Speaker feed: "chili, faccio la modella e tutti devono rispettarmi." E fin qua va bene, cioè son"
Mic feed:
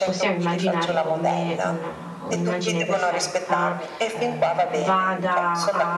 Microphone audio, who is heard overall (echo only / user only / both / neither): both